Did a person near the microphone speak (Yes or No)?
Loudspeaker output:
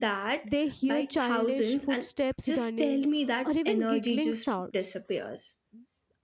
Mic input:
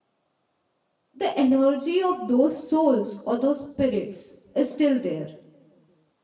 Yes